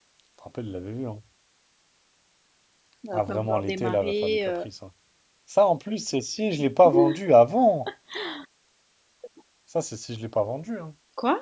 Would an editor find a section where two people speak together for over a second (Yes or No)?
Yes